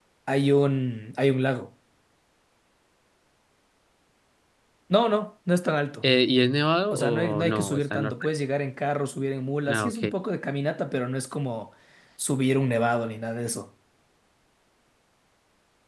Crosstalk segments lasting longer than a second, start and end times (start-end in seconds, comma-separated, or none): 6.9-8.1